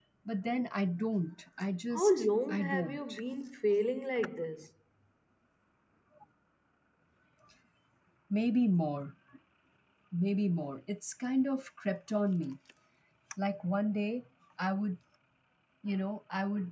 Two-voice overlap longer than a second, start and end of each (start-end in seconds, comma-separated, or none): 1.9-3.2